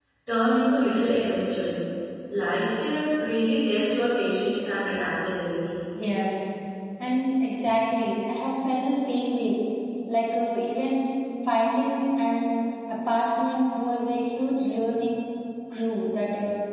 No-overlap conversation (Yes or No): Yes